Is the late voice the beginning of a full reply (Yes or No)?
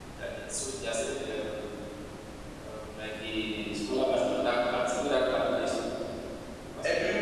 Yes